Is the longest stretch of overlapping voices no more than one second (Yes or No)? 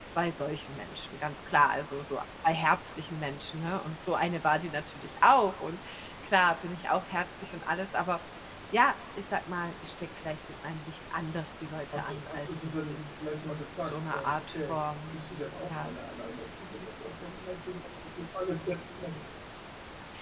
No